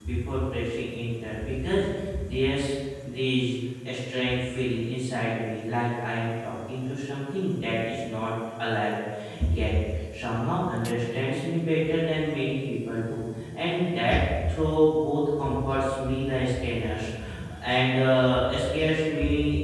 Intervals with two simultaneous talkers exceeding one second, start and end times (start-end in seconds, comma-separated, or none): none